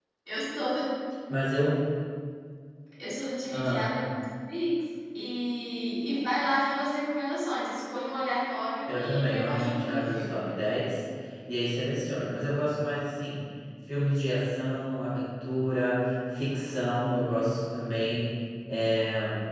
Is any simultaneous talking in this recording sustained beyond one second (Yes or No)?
Yes